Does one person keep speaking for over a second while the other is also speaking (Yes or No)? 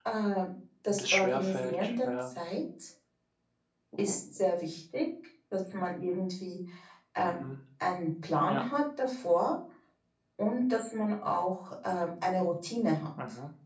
Yes